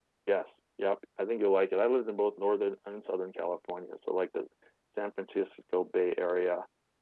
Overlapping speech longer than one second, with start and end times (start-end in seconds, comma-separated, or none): none